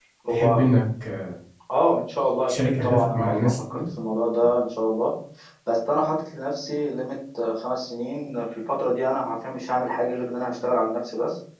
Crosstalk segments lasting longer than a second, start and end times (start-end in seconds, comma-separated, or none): 2.5-3.8